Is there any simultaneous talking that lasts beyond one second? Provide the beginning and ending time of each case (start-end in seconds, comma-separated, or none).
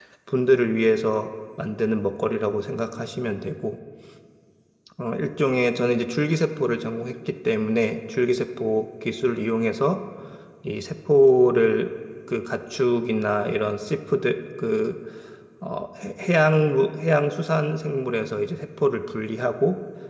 none